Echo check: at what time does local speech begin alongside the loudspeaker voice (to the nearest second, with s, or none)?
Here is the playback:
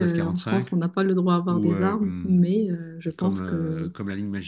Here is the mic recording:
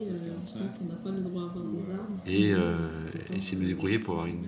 2 s